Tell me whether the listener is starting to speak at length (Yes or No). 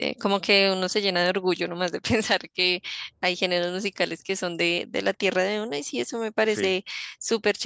No